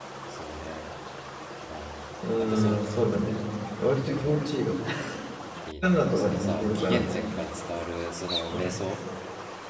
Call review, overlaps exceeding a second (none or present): present